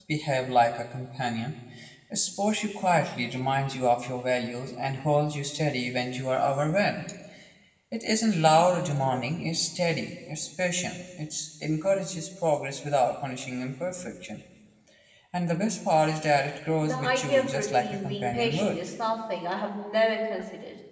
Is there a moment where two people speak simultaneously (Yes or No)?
Yes